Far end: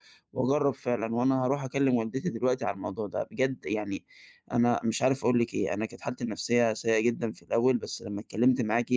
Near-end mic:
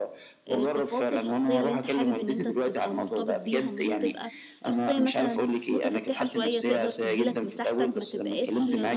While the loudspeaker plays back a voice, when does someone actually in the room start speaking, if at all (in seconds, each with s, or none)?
0.5 s